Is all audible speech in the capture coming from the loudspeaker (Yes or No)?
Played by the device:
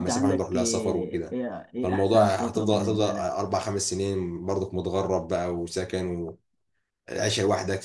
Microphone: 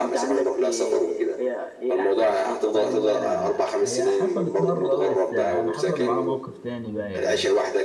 No